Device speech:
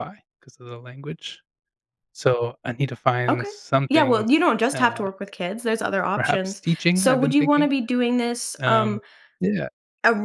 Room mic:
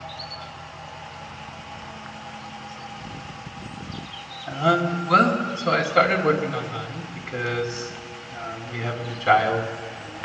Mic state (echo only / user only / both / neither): user only